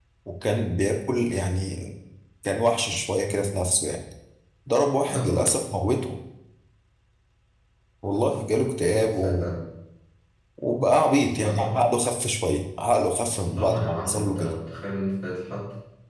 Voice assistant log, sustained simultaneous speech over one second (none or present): present